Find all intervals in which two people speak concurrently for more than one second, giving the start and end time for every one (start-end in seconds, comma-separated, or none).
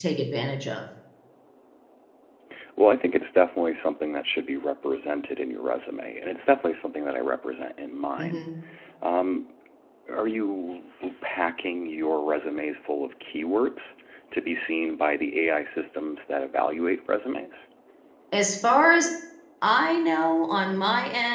none